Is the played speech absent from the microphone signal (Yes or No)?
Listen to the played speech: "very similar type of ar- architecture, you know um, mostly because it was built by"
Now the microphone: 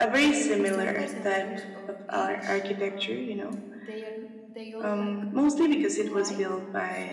No